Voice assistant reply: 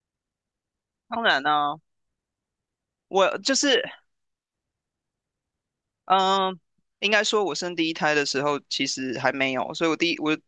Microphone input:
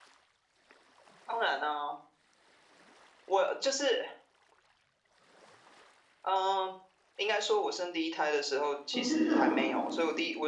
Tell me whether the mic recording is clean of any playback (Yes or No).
No